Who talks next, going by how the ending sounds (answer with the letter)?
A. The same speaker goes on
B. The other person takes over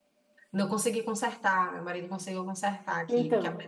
B